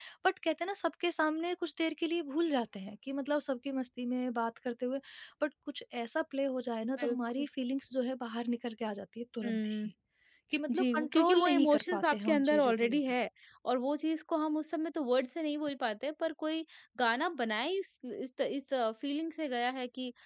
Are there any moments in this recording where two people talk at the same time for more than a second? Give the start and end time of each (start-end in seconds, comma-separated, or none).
10.8-13.0